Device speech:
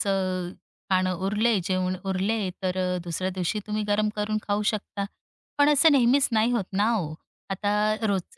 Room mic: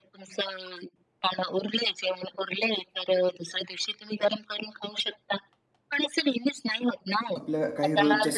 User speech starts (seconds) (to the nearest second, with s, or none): 7 s